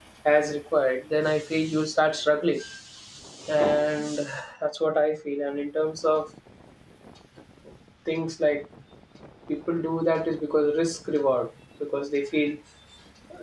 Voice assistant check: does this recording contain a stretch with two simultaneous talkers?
No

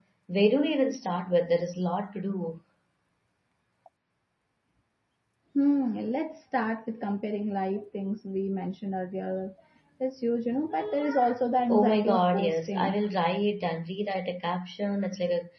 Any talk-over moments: Yes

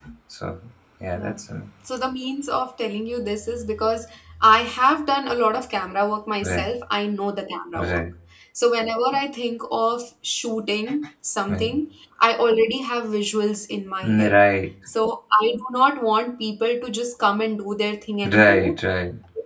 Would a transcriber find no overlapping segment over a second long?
Yes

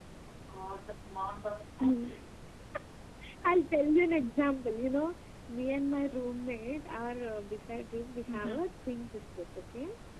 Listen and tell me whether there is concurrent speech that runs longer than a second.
No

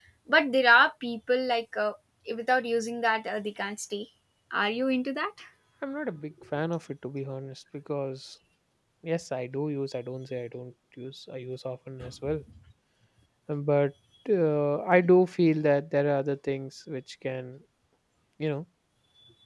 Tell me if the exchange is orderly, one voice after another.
Yes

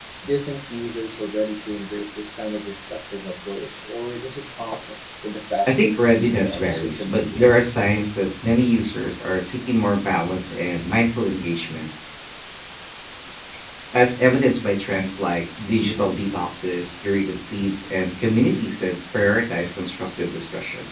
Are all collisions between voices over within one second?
No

